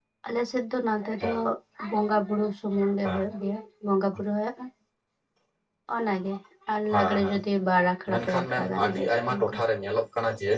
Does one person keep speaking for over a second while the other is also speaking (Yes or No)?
Yes